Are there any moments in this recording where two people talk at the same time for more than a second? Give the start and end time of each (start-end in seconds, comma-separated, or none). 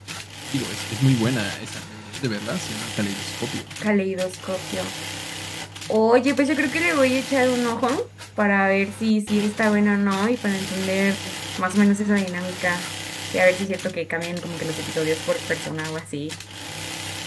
none